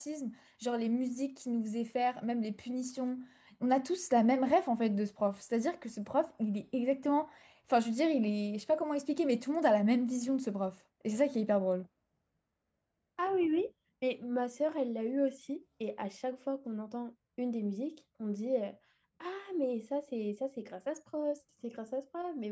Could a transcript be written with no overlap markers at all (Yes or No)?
Yes